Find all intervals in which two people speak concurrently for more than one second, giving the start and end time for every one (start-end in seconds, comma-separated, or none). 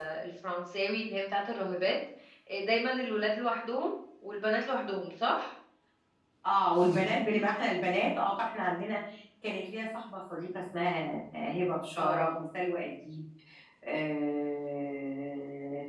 none